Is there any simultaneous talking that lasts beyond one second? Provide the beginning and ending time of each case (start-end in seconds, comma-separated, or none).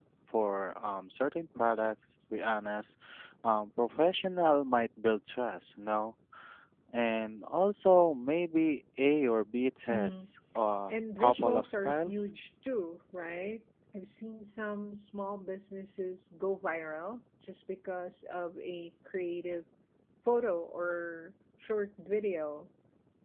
10.9-12.3